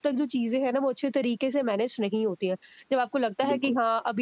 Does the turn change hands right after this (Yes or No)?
No